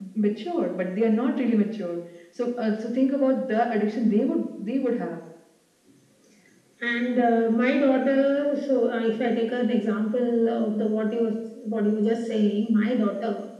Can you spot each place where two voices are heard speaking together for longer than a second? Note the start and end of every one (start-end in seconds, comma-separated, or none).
none